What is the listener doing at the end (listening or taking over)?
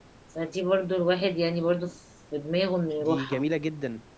taking over